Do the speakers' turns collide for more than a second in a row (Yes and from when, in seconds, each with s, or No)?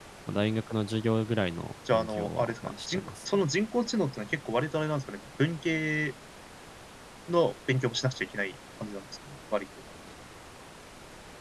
Yes, from 1.9 s